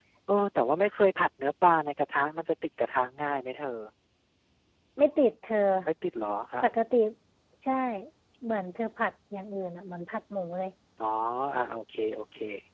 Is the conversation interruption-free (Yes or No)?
Yes